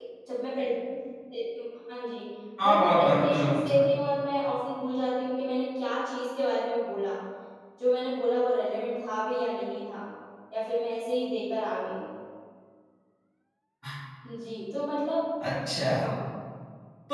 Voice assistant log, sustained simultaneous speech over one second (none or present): present